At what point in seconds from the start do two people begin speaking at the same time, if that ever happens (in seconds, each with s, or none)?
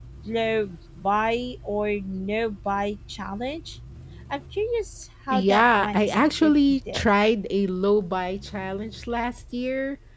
5.3 s